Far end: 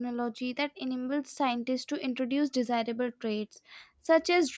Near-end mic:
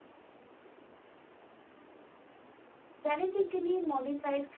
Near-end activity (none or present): present